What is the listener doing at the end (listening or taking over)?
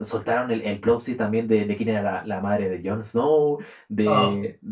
listening